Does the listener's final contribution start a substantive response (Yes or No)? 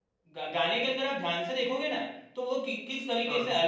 No